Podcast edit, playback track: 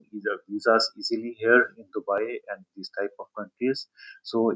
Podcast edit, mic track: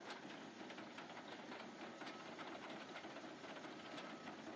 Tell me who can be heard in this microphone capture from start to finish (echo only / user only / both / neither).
neither